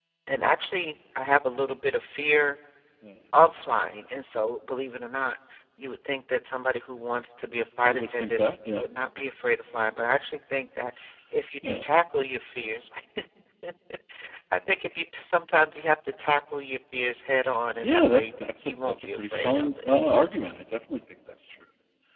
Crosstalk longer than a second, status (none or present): present